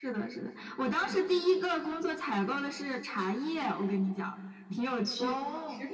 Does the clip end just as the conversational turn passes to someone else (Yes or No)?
No